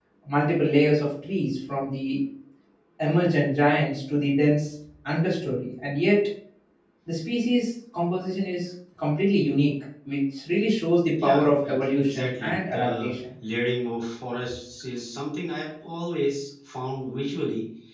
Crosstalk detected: Yes, from 11.1 s

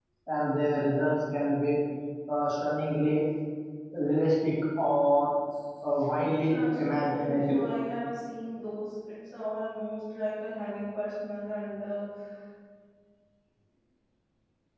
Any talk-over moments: Yes, from 6.4 s

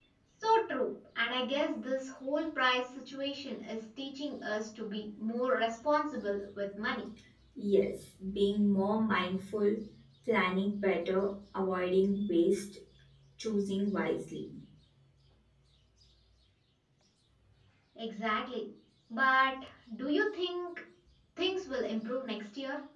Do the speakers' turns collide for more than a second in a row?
No

